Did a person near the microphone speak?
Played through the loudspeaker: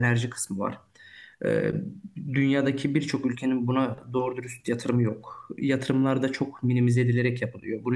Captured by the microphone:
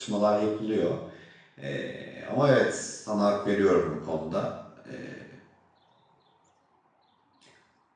Yes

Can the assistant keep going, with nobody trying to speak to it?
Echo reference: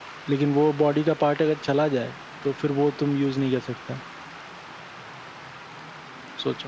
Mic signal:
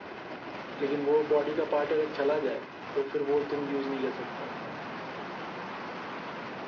Yes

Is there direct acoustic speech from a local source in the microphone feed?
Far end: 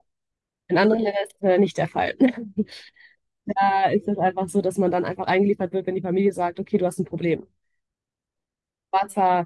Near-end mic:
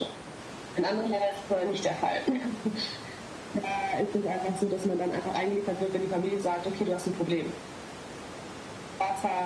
No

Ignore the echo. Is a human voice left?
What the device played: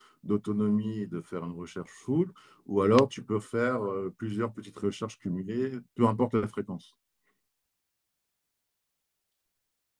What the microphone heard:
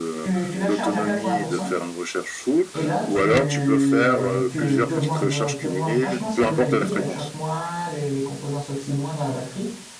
Yes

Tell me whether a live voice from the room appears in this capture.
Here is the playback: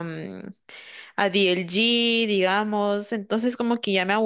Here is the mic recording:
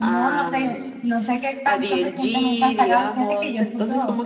Yes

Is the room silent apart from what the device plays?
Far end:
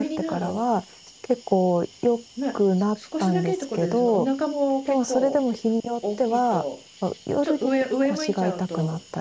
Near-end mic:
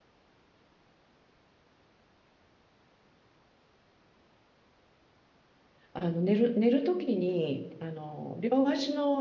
No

